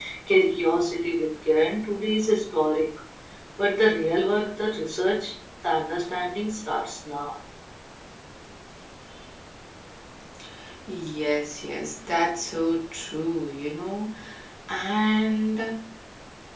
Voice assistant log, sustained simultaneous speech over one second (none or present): none